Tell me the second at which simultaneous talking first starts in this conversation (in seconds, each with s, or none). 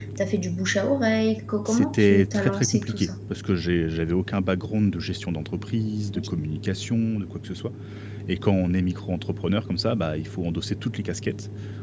1.7 s